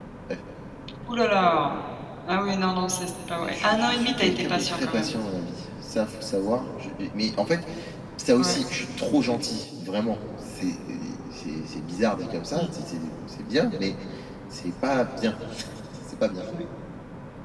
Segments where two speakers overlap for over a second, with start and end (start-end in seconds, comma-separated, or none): 3.4-5.1